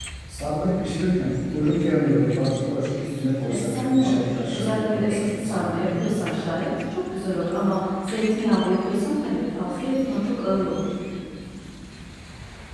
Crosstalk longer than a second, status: present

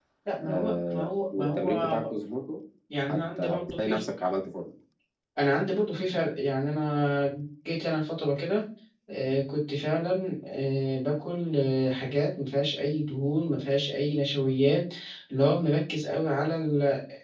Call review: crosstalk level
present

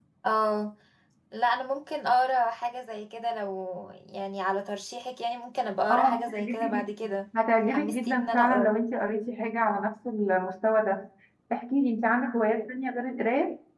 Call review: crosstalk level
present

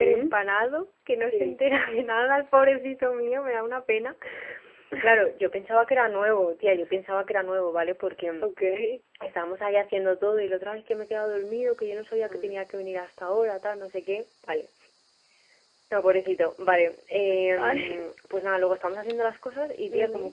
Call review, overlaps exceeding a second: none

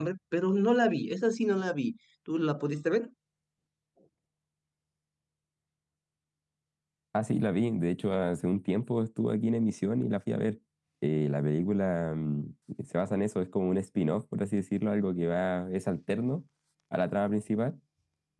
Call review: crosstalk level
none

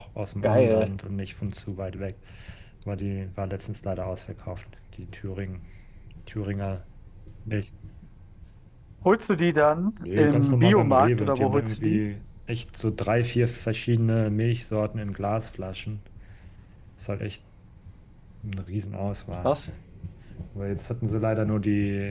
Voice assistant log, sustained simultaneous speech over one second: present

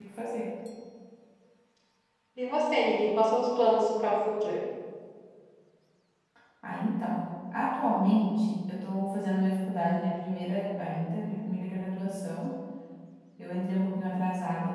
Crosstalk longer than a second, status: none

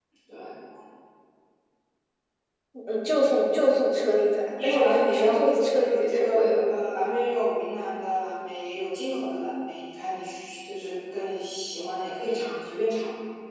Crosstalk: present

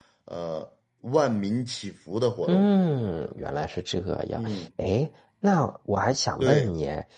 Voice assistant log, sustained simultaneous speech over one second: none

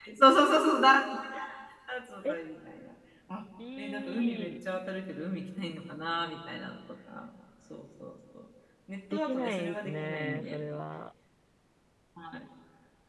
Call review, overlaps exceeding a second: present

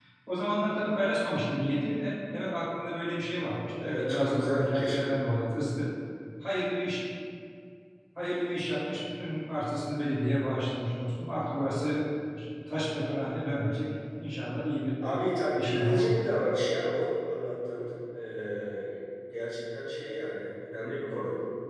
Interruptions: present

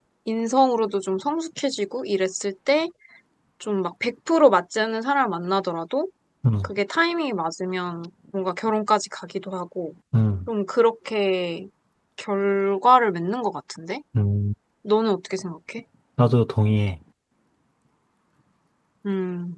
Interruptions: none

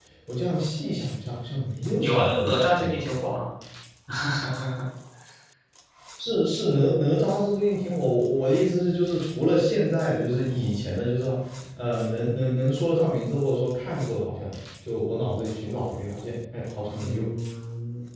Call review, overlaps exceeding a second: present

